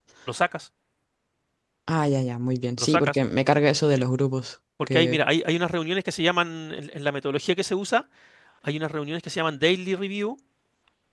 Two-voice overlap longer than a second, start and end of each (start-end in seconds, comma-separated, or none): none